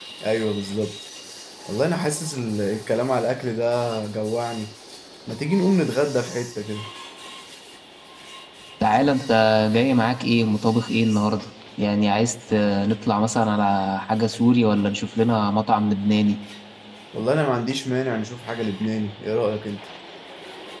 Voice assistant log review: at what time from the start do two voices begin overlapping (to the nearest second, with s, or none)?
none